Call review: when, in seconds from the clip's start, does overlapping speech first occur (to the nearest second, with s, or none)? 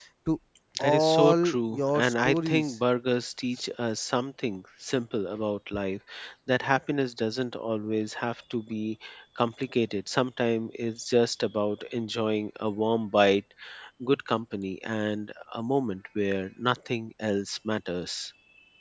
1 s